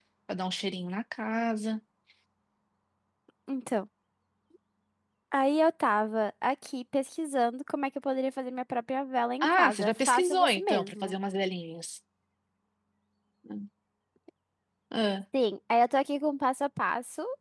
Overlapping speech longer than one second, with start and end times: 9.4-11.2

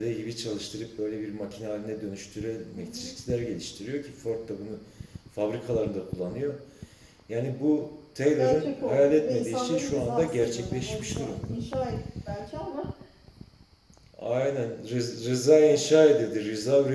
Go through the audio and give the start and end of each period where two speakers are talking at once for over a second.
8.4-11.5

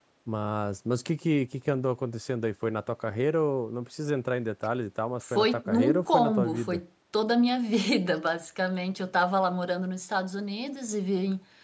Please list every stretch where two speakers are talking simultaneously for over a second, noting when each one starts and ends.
5.3-6.8

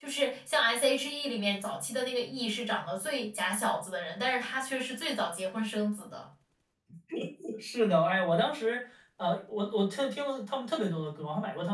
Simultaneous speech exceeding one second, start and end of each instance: none

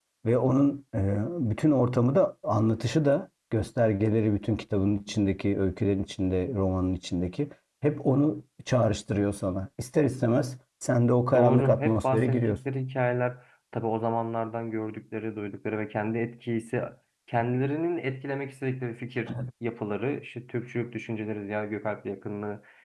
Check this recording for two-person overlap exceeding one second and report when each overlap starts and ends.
11.3-12.6

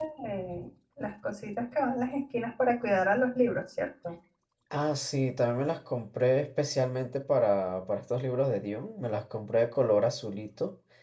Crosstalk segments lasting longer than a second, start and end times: none

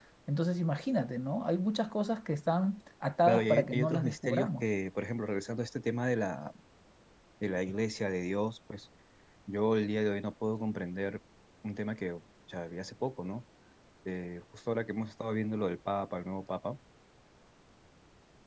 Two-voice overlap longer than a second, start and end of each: 3.3-4.6

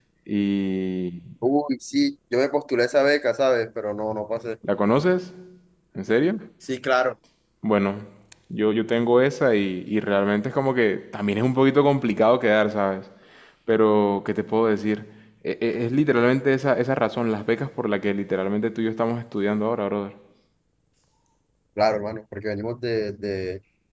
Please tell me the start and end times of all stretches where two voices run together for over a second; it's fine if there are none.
none

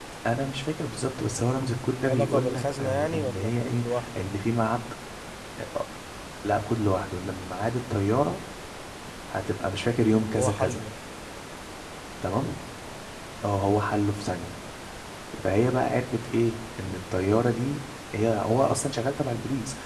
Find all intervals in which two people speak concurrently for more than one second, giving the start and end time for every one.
2.0-4.2

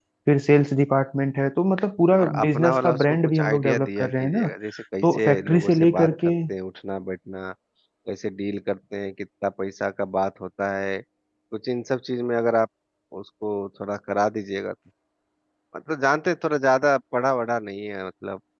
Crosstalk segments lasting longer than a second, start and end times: 2.2-4.5, 5.0-6.3

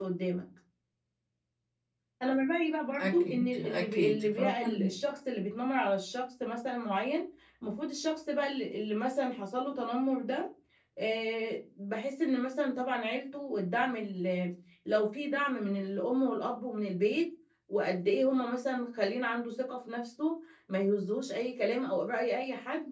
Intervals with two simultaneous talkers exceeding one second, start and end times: 3.0-5.0

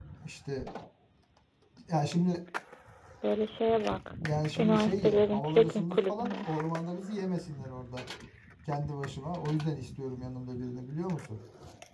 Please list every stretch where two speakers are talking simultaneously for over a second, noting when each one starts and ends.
4.6-6.5

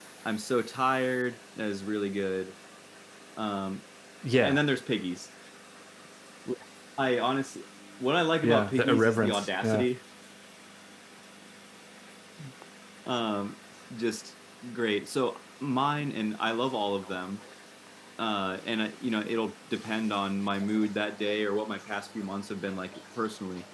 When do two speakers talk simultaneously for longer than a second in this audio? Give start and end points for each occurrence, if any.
8.4-9.9

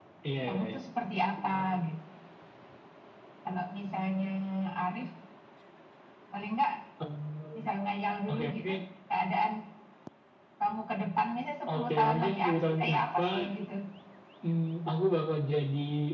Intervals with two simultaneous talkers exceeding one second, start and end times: 11.7-13.4

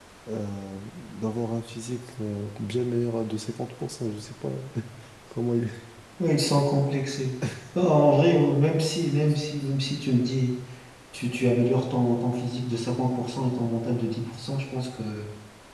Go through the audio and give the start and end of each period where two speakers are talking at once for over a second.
none

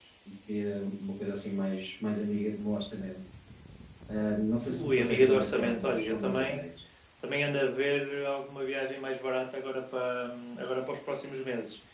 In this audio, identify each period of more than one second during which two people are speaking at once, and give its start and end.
4.7-6.6

